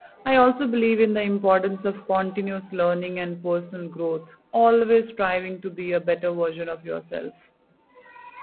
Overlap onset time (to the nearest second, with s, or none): none